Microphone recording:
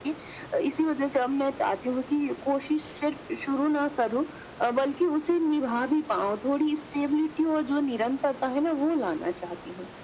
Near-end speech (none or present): none